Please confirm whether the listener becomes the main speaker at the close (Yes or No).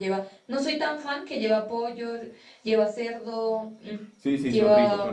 Yes